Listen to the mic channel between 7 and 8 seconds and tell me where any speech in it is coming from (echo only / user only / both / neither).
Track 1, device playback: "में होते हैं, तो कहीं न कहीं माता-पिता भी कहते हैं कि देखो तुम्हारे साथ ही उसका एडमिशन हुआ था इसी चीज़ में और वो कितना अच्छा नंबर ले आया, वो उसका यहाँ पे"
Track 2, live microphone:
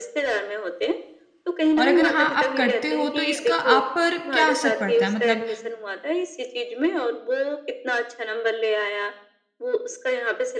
echo only